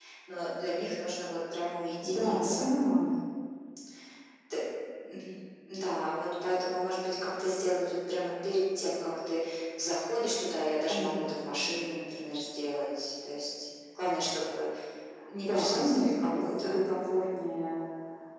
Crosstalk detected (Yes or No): Yes